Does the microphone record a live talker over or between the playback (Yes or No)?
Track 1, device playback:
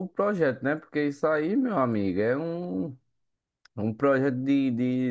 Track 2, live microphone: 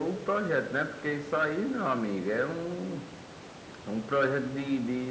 No